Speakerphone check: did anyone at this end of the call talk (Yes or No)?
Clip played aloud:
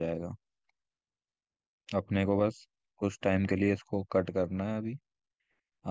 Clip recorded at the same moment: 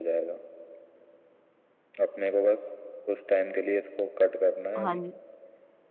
Yes